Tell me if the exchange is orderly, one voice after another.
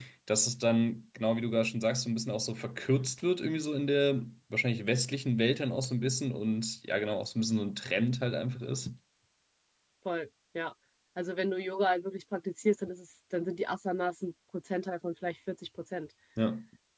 Yes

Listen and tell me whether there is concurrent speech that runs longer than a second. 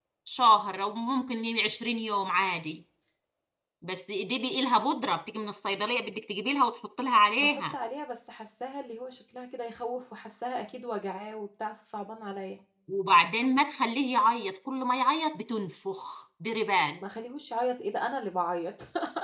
No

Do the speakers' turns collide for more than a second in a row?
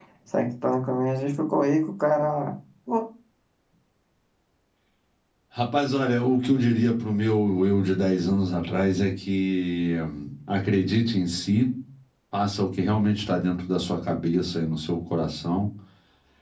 No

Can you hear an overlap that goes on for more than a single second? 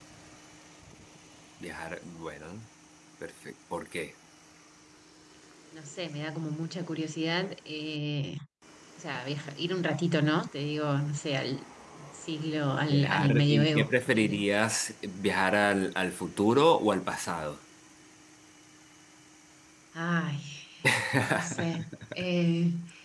Yes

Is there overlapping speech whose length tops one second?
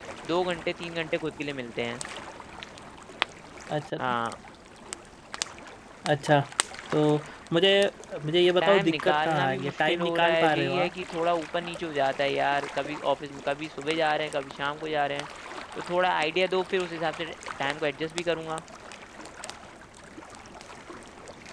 Yes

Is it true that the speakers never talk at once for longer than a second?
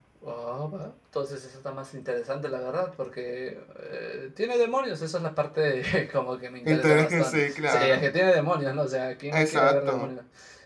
No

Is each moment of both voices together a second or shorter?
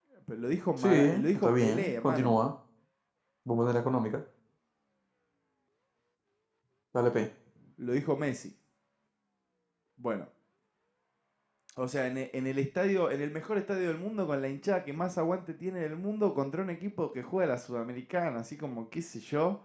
No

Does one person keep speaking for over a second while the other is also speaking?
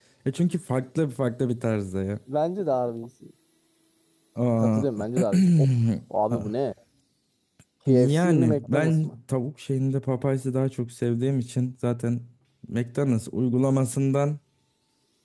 Yes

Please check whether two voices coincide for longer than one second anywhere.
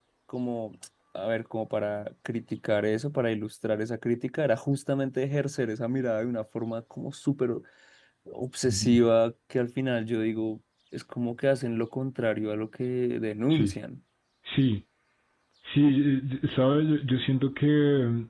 No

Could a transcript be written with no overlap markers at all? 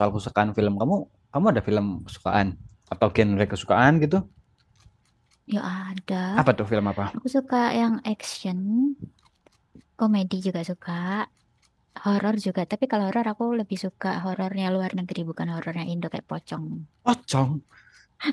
Yes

